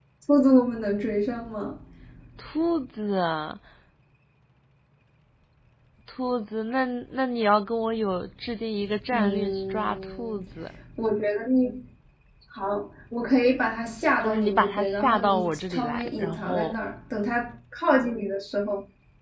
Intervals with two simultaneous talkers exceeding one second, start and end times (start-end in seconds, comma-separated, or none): 9.1-10.4, 14.2-16.8